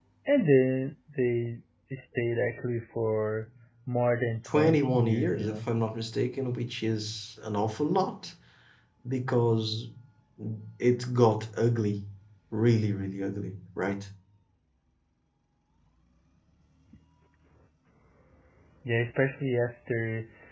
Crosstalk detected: Yes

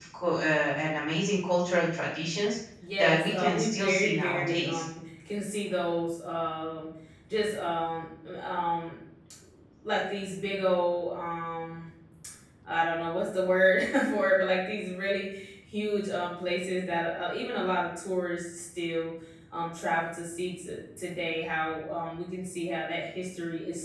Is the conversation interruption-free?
No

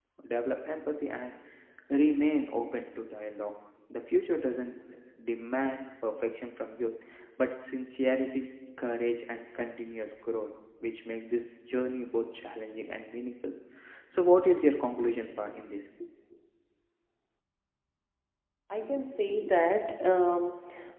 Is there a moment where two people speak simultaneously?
No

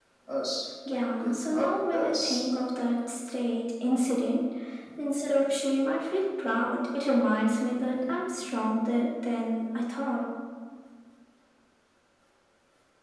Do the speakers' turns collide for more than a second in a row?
Yes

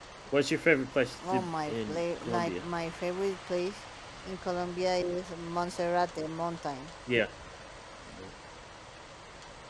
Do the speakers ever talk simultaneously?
Yes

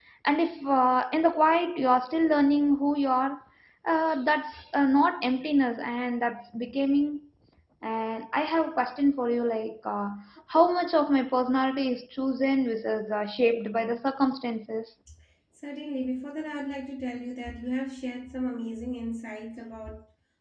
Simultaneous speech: No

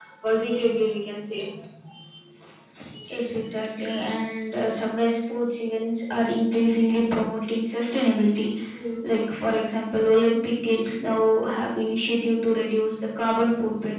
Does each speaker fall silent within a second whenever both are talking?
Yes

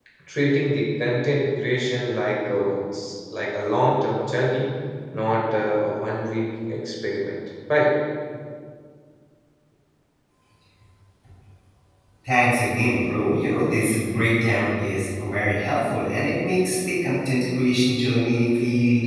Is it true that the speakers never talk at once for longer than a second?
Yes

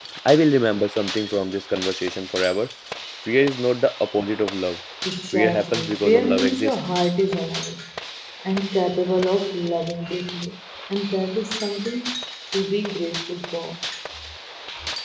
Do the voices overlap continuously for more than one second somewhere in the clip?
Yes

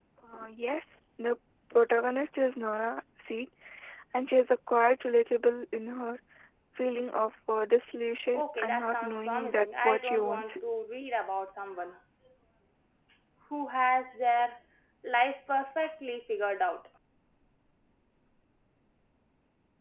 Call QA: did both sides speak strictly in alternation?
No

